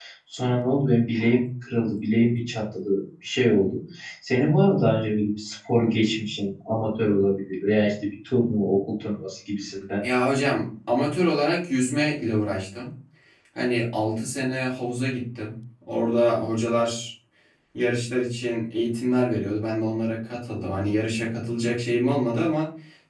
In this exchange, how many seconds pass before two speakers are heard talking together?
none

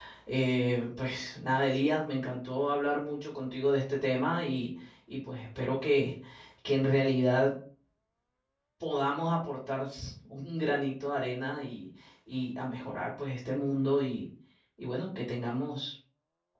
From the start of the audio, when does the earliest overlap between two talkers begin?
none

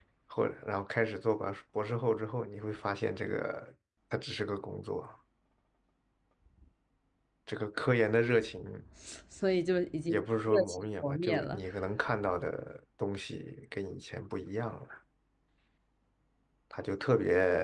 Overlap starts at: 10.1 s

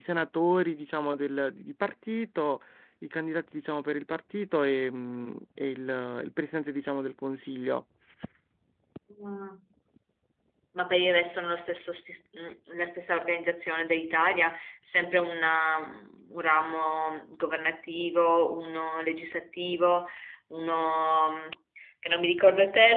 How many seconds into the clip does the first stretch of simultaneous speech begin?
none

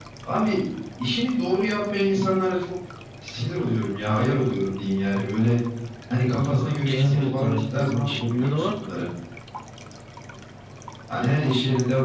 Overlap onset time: 6.8 s

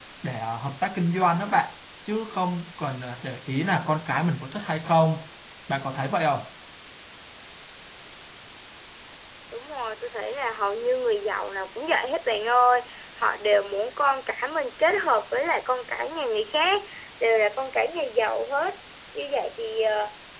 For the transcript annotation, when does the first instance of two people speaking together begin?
none

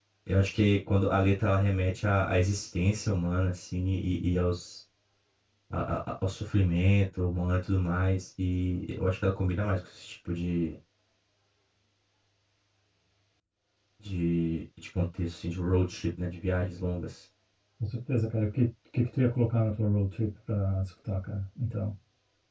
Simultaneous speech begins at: none

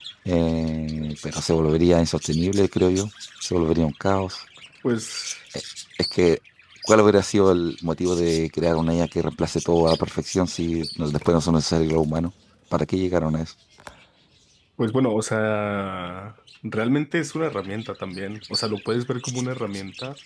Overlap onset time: none

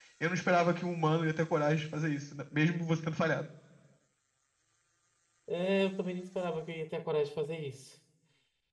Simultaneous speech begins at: none

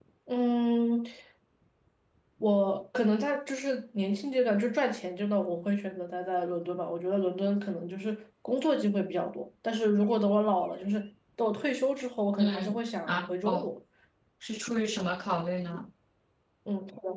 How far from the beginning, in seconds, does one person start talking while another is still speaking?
12.4 s

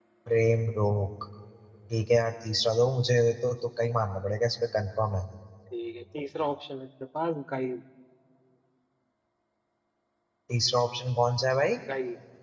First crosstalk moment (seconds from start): none

